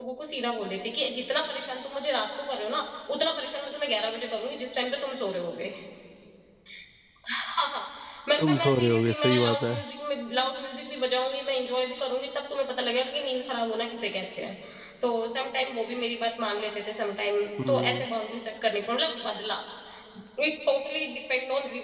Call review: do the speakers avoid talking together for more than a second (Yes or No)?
No